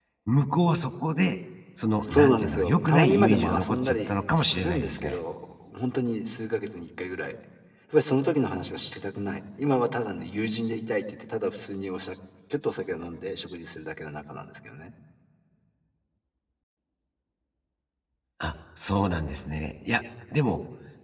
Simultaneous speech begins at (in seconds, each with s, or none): 2.0 s